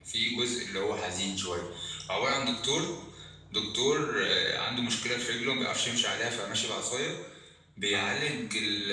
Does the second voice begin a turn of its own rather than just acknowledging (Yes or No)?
No